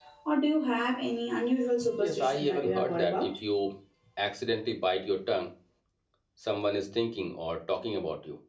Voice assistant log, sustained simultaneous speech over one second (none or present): present